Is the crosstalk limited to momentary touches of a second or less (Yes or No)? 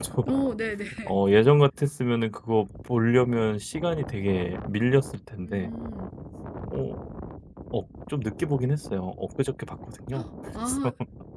Yes